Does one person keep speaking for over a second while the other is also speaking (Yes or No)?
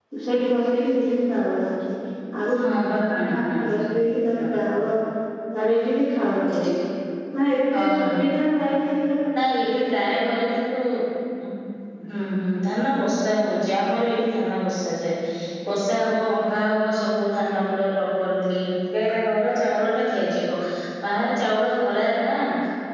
Yes